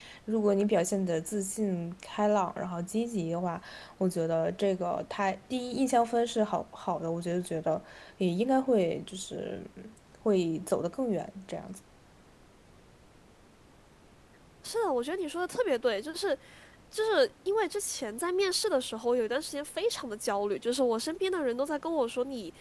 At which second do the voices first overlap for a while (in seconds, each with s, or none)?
none